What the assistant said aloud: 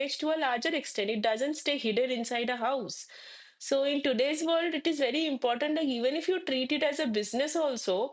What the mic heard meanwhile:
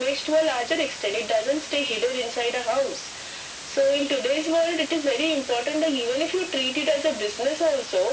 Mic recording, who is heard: echo only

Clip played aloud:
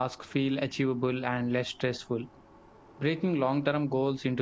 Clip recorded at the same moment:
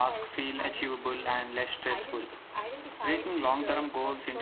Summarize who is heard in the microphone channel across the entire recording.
both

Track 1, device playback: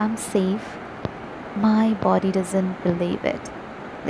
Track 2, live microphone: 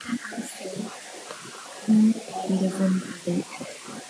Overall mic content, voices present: echo only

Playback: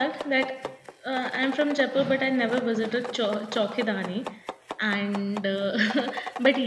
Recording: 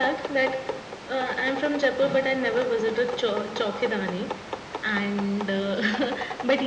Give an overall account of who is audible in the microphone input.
echo only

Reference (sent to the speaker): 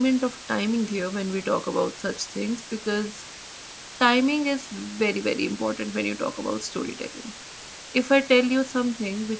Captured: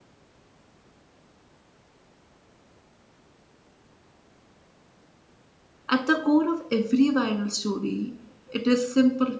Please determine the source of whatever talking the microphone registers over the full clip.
user only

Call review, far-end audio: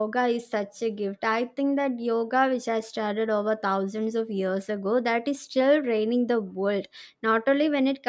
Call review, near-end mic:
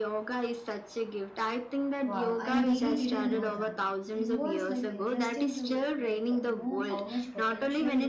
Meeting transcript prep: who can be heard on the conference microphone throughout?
both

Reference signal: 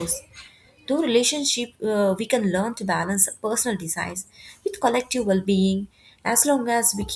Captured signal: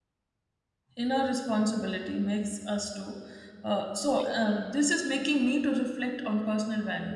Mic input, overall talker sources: user only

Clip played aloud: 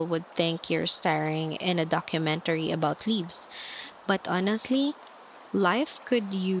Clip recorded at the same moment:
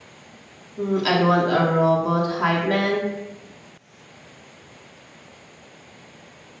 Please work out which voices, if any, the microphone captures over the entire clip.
user only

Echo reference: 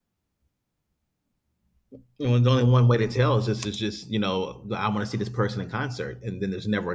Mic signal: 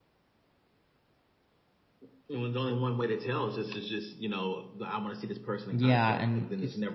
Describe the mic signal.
both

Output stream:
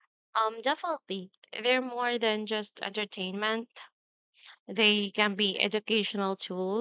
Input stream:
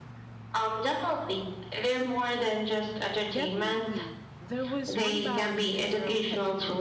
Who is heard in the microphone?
both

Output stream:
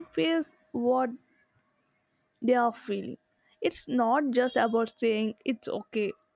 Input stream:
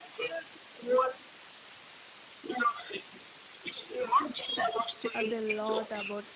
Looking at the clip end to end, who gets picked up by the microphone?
both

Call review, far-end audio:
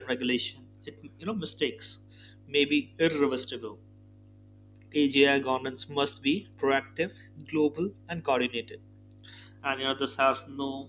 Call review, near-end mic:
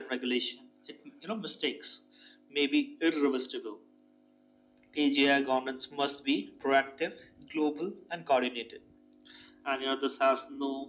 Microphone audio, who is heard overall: echo only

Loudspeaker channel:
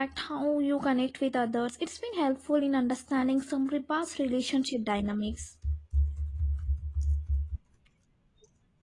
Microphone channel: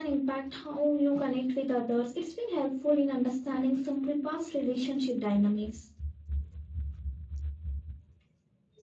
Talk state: echo only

